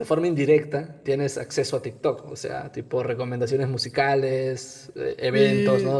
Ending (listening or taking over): listening